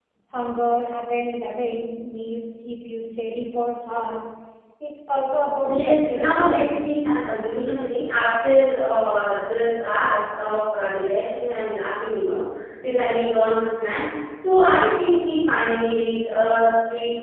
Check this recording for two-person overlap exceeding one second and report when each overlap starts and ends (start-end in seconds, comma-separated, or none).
5.7-6.9